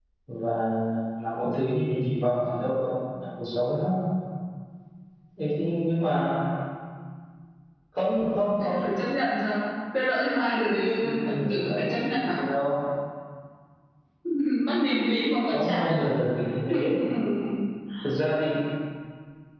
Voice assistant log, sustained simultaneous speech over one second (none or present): present